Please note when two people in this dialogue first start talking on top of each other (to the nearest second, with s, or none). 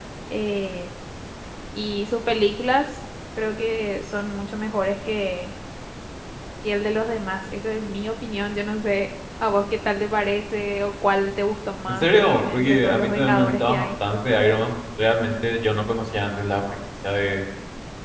12 s